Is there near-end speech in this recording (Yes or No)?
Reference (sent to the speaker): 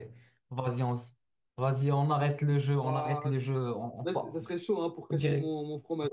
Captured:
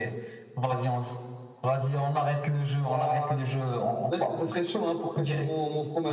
No